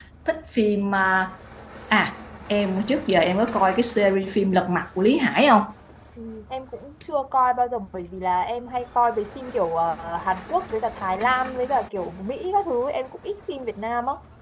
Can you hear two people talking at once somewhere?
No

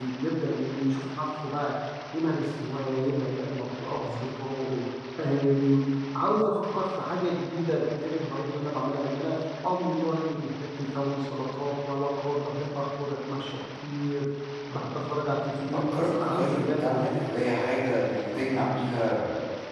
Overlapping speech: Yes, from 15.7 s

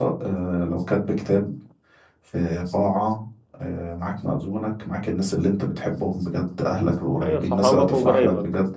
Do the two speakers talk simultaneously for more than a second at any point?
Yes, from 7.2 s

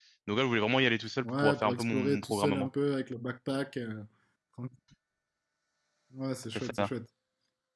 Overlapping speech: Yes, from 1.2 s

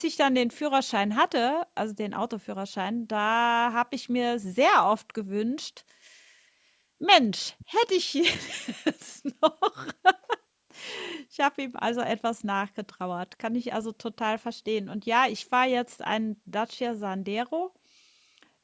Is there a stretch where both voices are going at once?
No

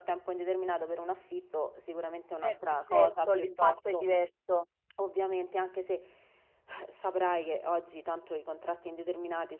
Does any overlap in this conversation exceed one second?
Yes, from 2.4 s

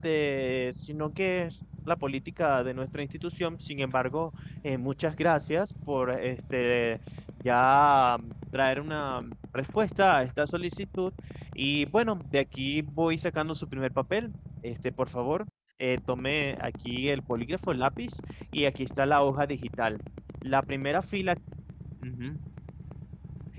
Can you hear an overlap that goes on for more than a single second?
No

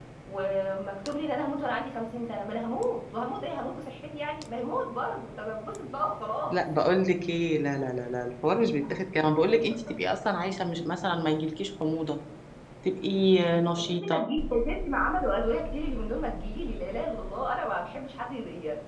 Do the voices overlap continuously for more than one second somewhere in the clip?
No

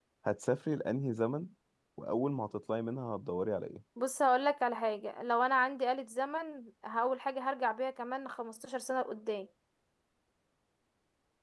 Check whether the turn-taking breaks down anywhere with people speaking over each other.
No

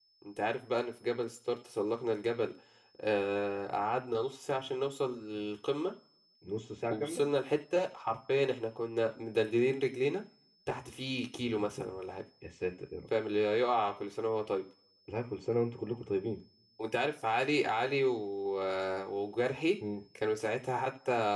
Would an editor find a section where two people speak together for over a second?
No

